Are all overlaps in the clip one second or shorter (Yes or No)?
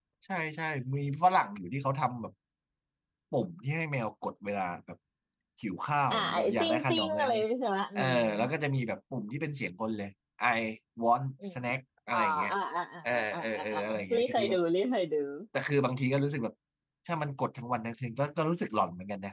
No